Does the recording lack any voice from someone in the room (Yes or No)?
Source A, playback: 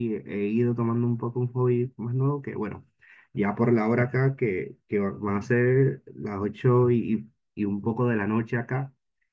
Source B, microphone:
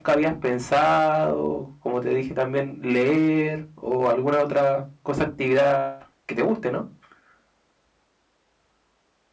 No